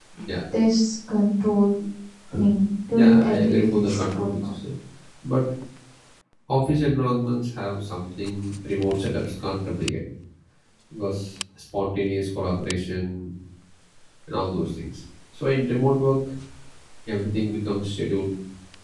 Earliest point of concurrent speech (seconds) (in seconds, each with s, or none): 2.9 s